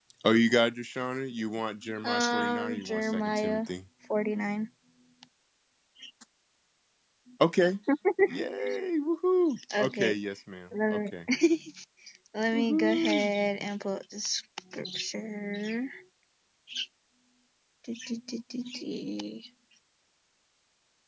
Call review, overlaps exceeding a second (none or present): present